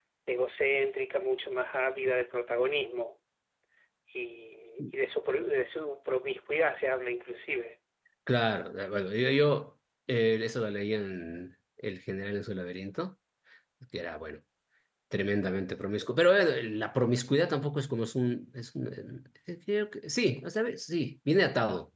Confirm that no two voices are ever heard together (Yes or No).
Yes